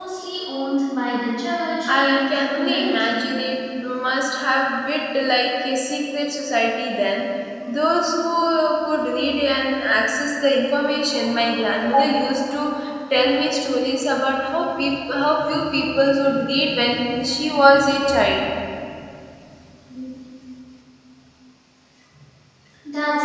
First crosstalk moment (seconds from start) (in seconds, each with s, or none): 1.9 s